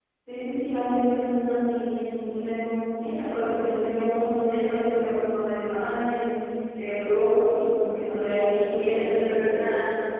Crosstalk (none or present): present